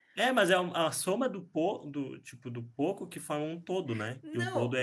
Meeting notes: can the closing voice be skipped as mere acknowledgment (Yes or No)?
No